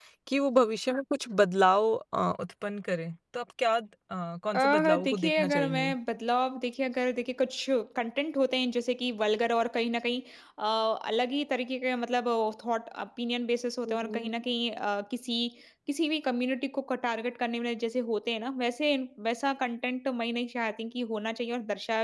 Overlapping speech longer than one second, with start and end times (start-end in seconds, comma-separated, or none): 4.5-6.0